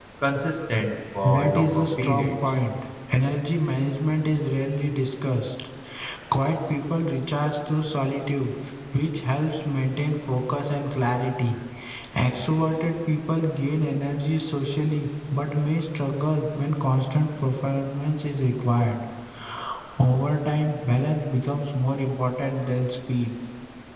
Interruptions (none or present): present